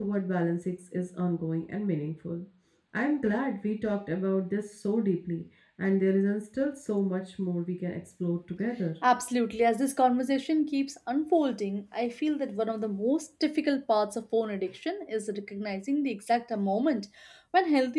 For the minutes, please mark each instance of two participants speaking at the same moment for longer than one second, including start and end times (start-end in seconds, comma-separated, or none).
none